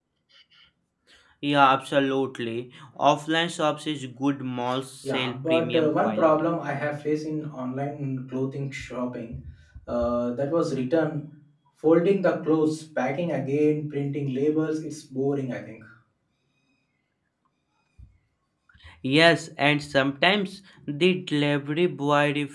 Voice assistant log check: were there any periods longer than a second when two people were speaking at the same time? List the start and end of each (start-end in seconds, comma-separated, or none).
5.0-6.5